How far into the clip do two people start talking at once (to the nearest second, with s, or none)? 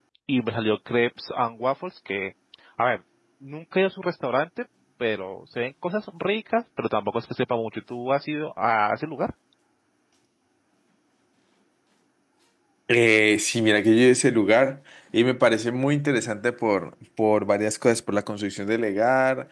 none